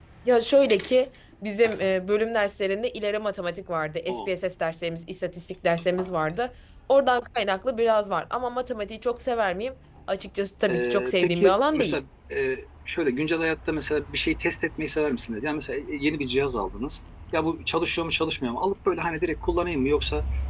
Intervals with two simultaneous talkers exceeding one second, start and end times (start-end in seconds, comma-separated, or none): 10.7-12.0